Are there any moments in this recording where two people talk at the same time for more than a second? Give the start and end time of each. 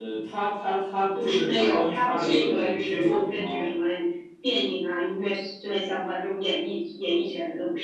1.2-3.7

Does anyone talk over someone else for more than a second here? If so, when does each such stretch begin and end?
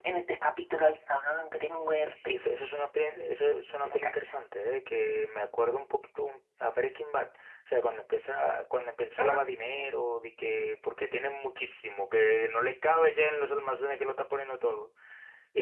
none

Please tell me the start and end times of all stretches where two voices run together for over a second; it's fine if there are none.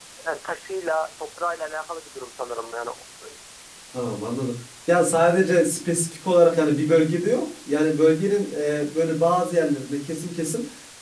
none

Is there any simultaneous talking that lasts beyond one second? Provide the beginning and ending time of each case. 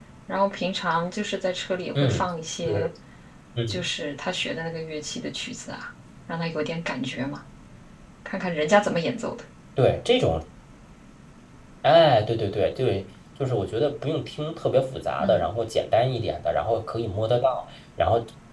none

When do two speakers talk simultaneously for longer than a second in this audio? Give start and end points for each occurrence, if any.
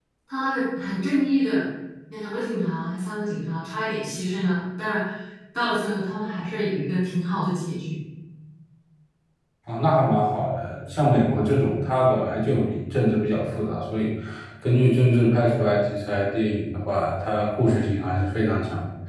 none

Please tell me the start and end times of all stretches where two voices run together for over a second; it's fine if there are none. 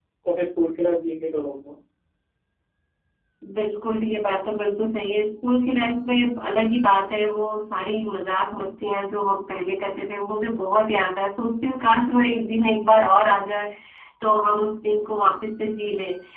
none

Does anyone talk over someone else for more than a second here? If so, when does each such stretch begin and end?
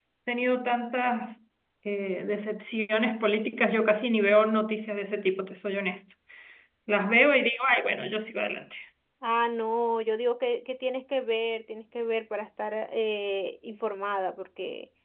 none

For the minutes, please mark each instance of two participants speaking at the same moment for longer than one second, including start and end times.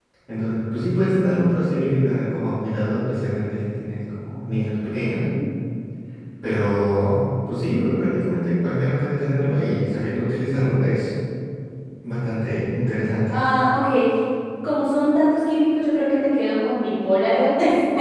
none

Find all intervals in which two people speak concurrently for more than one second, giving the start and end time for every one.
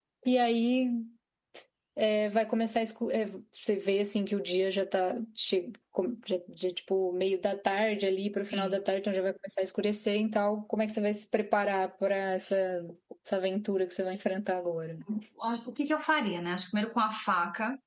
none

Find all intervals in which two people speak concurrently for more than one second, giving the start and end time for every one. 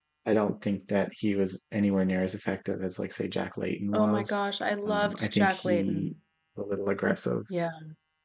4.9-6.1

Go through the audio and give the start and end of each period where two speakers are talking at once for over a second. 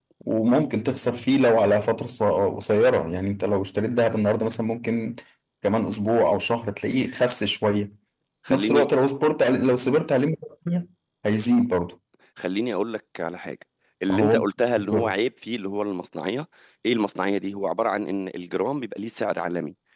none

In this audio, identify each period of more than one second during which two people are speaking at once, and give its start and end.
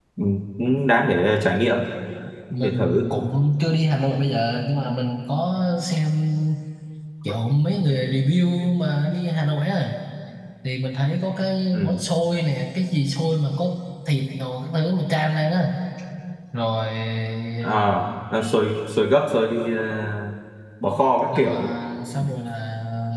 none

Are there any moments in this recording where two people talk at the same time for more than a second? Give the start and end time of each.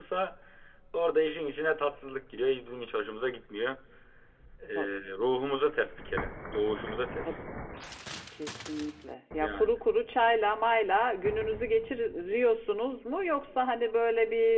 none

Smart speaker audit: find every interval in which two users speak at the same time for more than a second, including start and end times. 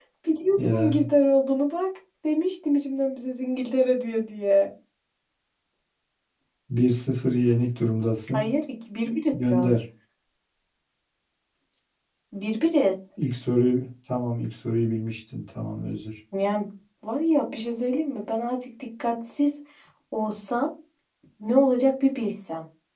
none

